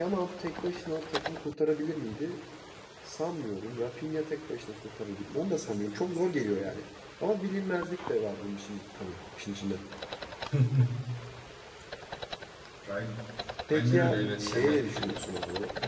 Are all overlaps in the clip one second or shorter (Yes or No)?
No